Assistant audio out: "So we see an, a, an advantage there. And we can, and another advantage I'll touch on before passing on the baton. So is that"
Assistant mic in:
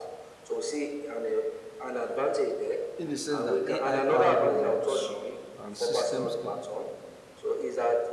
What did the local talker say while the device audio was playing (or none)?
in the sense that AI-powered robots and systems can